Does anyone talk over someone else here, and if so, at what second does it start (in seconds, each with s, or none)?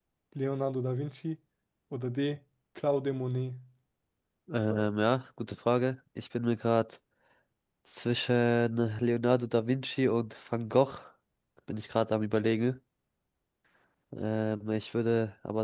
none